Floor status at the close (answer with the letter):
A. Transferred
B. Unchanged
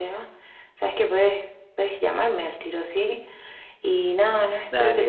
B